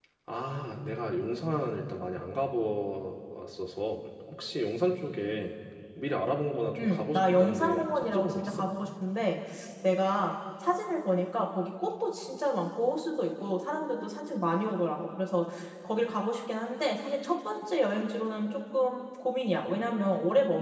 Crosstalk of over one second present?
Yes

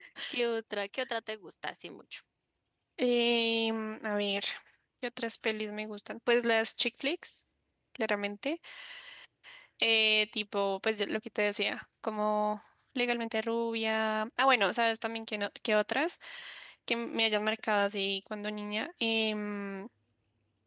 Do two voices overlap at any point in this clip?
No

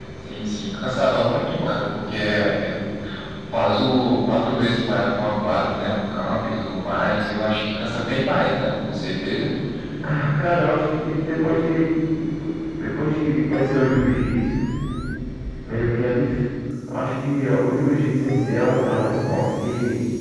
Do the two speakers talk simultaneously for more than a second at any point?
No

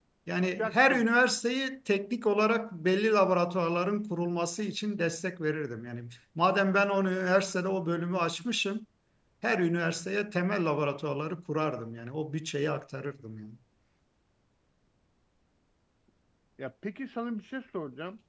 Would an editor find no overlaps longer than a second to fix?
Yes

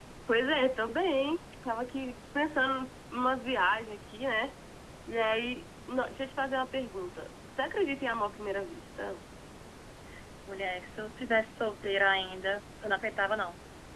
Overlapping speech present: No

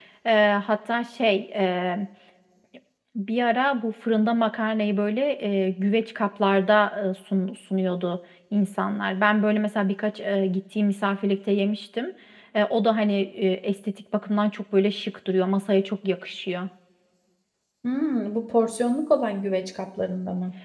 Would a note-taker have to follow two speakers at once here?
No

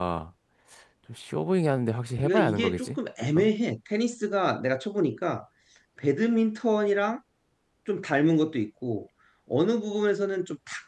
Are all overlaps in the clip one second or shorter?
No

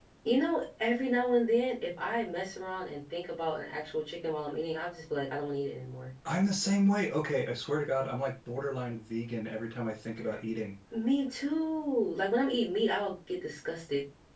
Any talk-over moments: No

